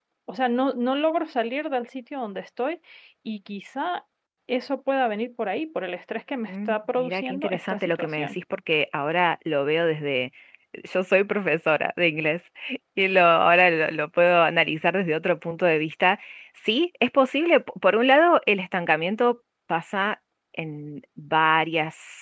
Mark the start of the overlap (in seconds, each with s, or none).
6.5 s